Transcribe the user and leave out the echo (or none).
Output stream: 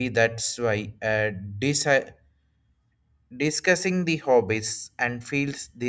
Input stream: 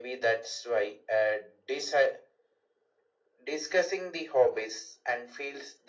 none